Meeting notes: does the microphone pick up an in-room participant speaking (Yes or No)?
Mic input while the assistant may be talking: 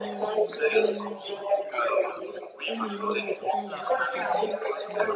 Yes